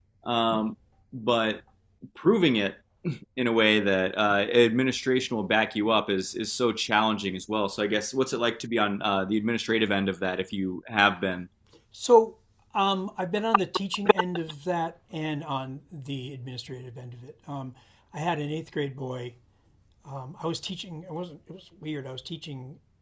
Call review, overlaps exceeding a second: none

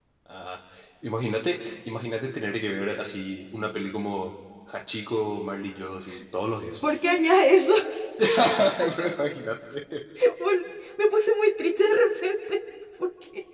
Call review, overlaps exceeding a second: none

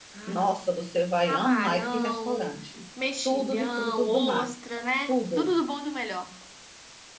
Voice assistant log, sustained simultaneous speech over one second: present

